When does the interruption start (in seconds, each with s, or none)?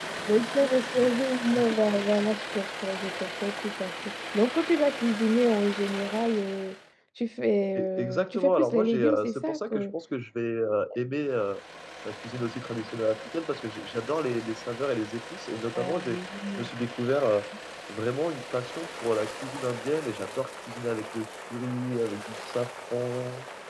7.8 s